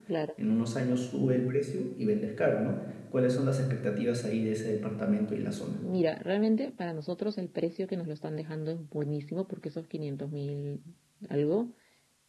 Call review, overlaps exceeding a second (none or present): none